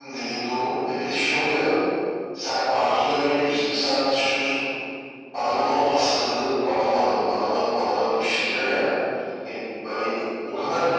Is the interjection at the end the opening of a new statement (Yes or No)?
No